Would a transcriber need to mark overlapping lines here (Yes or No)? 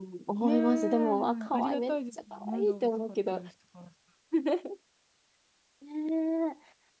Yes